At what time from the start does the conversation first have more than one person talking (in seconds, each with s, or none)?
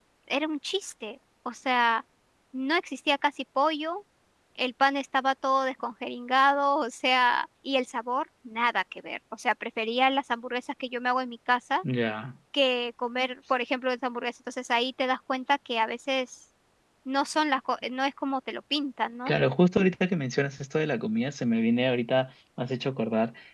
none